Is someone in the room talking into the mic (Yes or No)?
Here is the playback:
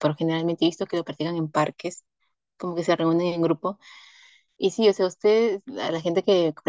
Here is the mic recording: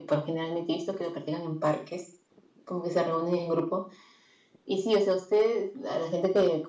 No